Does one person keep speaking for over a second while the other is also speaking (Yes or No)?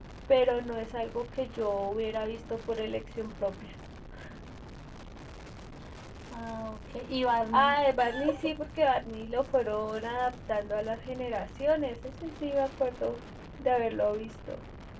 No